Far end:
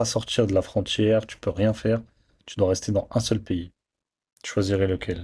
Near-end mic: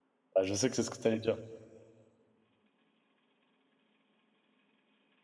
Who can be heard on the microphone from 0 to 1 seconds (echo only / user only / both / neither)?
user only